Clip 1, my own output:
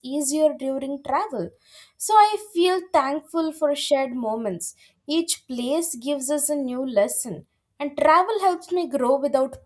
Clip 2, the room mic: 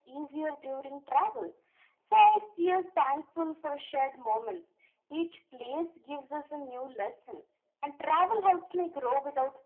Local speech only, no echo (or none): none